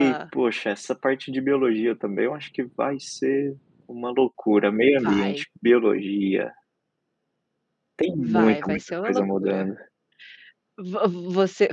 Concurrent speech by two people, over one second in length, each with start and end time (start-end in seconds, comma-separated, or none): 8.2-9.6